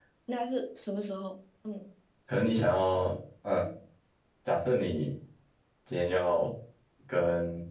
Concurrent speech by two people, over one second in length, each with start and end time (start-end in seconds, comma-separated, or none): none